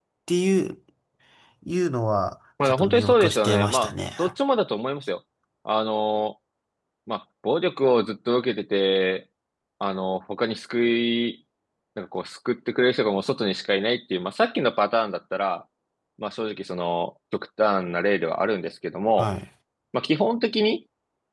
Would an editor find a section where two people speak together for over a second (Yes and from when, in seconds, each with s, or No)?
Yes, from 2.6 s